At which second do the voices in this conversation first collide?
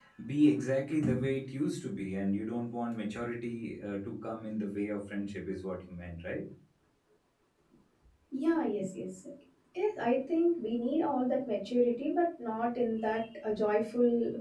none

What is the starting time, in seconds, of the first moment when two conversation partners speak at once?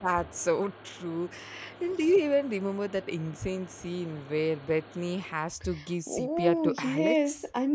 6 s

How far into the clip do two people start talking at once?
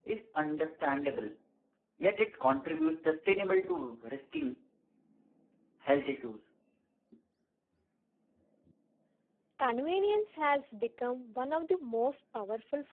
none

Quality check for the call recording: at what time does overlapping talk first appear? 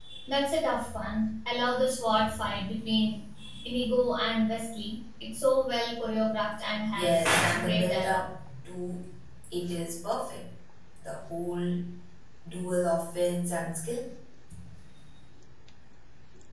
7 s

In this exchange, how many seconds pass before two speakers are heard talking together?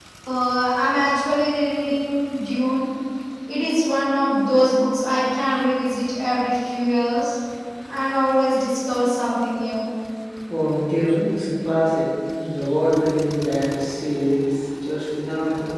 none

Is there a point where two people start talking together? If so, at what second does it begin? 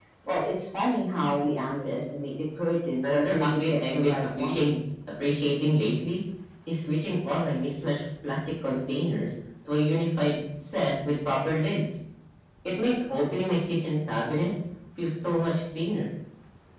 3 s

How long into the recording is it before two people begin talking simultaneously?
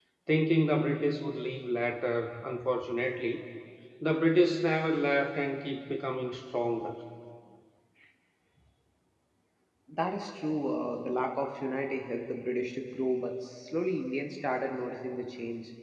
none

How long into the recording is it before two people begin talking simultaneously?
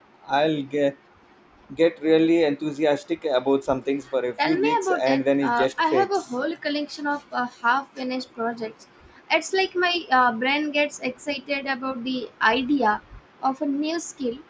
4 s

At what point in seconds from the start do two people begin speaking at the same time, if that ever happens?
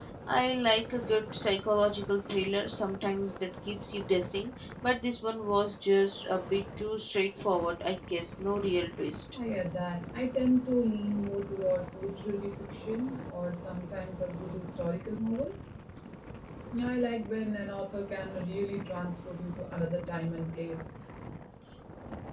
none

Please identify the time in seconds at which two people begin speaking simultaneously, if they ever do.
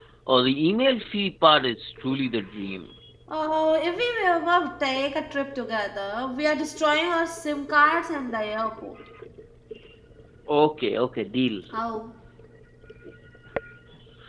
none

